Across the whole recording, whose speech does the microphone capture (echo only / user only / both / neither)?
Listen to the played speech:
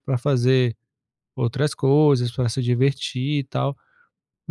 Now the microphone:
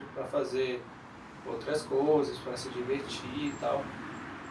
echo only